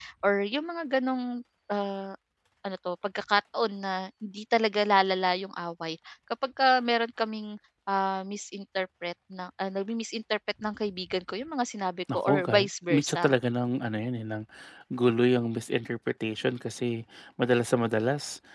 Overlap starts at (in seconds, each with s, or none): 12.1 s